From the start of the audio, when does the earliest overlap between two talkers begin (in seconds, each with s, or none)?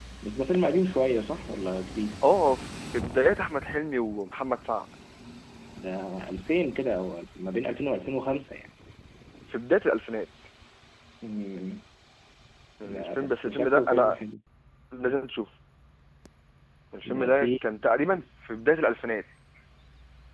12.8 s